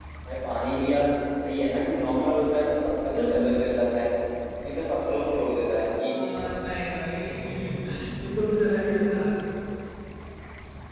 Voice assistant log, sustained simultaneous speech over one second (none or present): none